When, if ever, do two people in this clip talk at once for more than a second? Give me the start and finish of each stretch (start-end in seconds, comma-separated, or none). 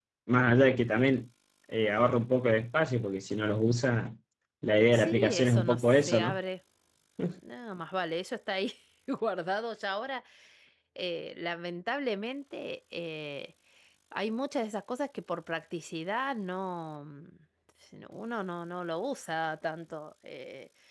4.9-6.4